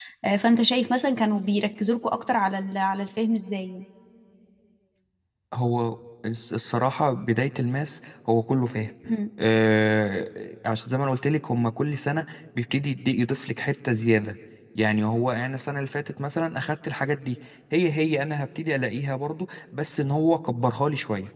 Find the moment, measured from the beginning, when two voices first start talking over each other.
none

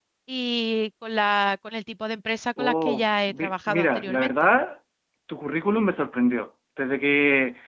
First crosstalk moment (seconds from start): 2.6 s

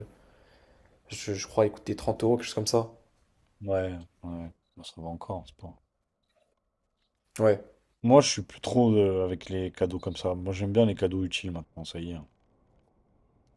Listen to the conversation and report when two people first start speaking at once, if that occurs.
none

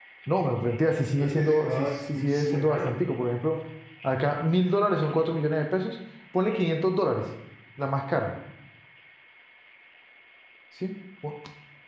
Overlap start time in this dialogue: 1.2 s

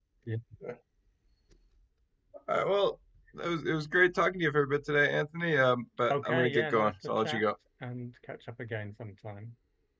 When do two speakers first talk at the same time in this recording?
6.1 s

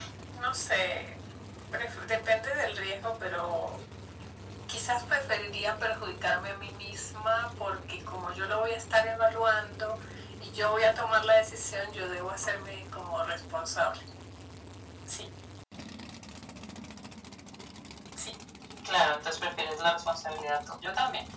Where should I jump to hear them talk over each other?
none

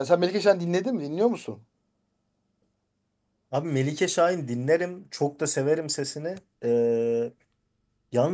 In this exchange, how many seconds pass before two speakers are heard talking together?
none

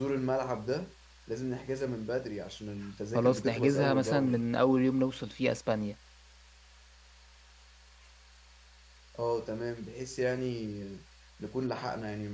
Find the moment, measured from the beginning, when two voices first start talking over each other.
3.1 s

